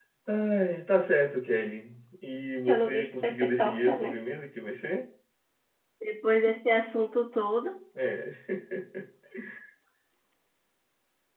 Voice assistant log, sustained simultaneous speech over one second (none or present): present